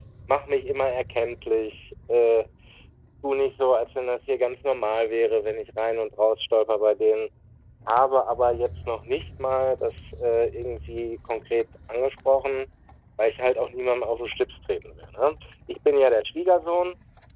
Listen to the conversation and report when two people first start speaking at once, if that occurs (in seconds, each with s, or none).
none